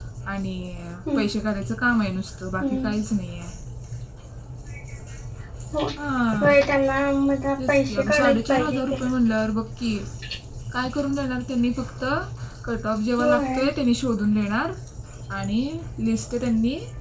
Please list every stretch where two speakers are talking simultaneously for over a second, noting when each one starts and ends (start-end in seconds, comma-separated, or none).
7.7-8.9